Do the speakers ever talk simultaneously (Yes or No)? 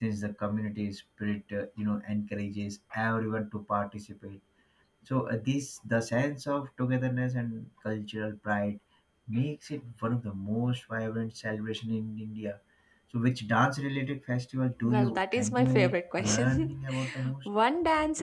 Yes